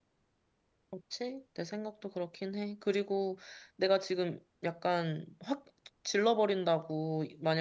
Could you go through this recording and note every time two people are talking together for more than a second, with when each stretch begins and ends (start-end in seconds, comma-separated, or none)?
none